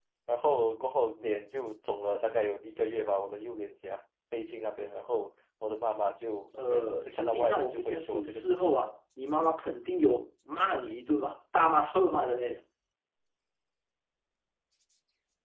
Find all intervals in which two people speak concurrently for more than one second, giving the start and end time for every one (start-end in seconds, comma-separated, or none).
6.7-8.8